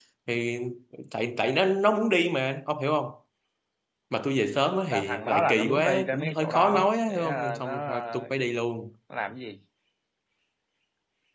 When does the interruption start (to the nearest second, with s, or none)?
5 s